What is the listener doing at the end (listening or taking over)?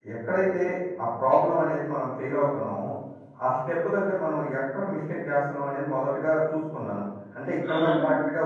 listening